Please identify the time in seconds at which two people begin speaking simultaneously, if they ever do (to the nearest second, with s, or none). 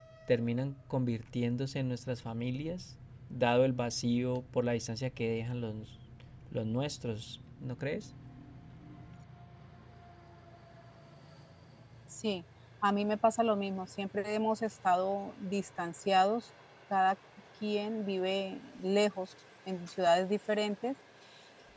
none